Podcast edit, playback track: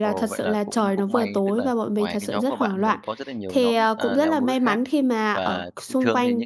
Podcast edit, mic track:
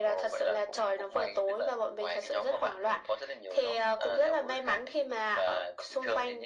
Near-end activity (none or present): none